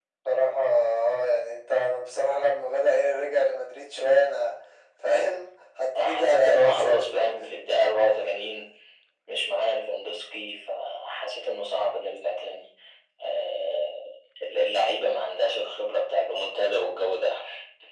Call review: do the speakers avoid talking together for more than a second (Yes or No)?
No